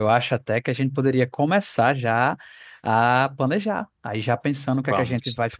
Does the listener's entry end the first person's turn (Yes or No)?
No